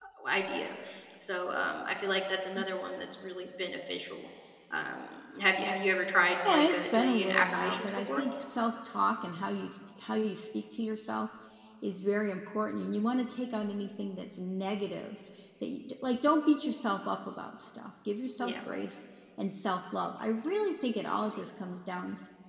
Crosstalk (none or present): present